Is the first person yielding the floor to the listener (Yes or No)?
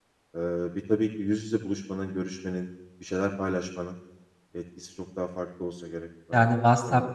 Yes